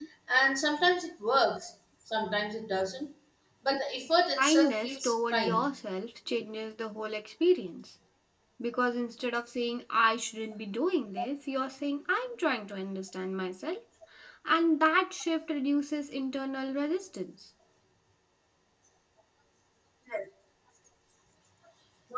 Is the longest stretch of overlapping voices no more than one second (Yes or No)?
No